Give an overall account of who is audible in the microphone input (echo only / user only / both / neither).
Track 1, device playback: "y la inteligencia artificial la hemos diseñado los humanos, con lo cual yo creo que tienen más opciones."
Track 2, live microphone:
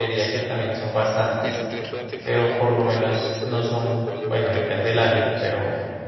both